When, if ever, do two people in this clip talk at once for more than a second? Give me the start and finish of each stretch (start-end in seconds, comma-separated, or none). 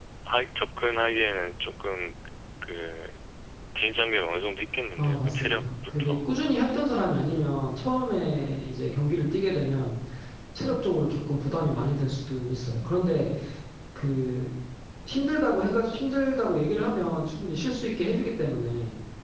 5.0-6.3